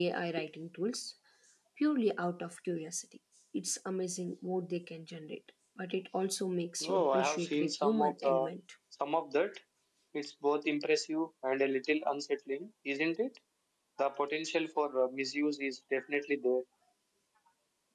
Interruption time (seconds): 6.8 s

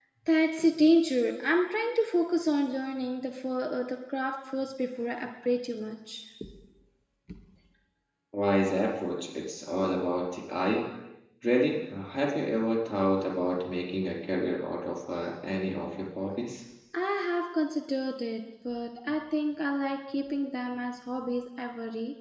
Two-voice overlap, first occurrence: none

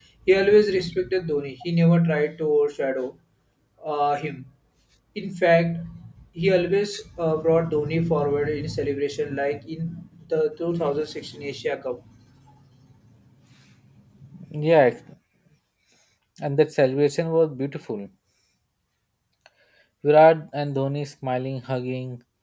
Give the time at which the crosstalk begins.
none

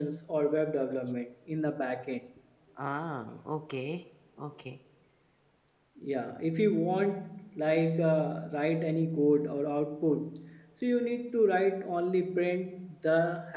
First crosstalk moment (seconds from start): none

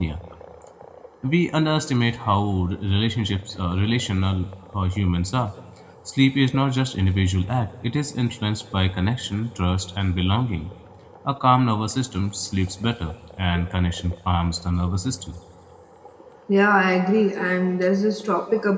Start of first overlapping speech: none

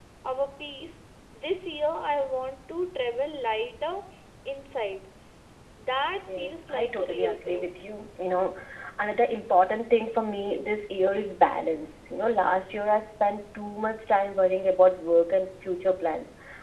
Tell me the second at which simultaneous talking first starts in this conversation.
6.2 s

